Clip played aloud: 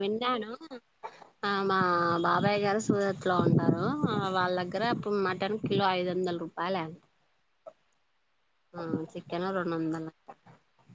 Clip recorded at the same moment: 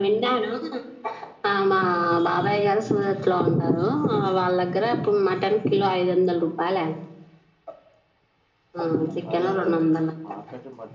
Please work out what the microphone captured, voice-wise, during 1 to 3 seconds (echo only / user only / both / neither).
echo only